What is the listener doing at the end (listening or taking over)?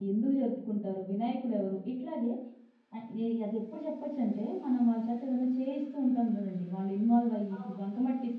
listening